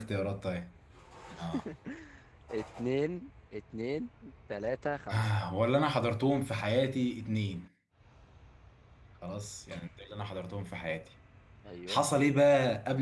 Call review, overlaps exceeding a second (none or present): none